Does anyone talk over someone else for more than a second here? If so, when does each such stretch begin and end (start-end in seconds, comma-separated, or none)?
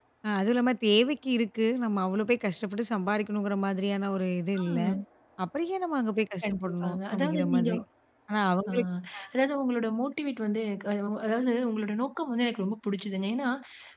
6.5-7.7